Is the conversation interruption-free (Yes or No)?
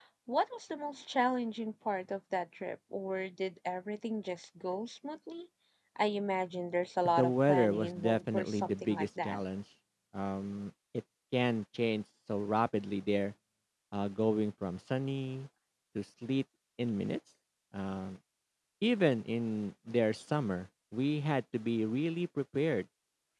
No